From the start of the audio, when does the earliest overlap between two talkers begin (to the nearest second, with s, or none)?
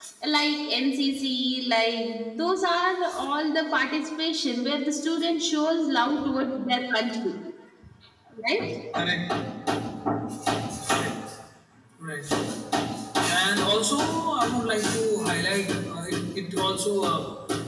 none